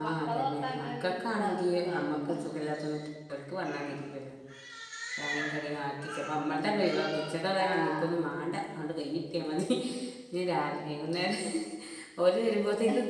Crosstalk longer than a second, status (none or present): present